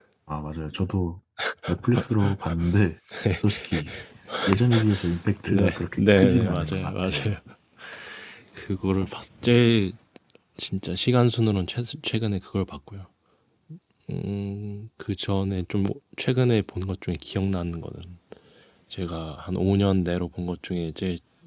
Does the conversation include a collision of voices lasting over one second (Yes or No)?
Yes